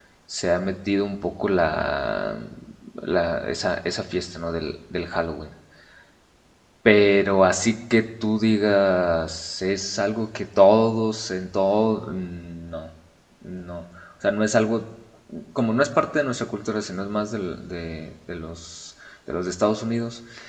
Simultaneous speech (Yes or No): No